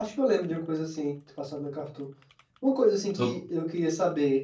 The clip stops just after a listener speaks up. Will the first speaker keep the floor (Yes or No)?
Yes